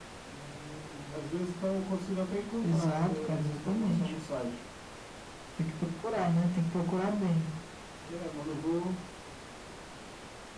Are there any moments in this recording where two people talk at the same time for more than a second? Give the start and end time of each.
2.6-4.1

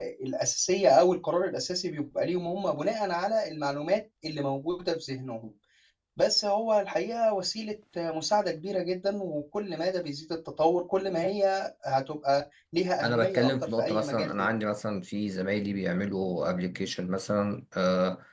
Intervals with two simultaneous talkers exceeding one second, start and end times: 13.0-14.5

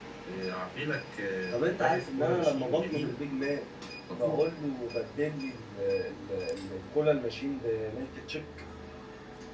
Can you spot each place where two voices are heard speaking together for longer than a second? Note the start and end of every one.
1.5-3.1

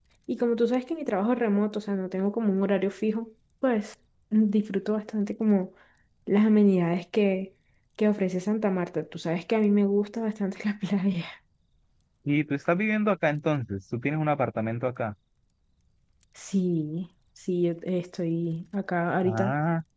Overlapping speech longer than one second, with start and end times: none

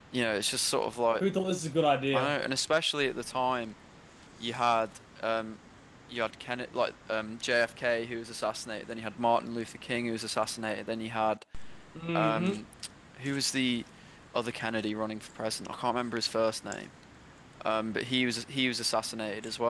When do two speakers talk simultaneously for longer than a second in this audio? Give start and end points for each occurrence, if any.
none

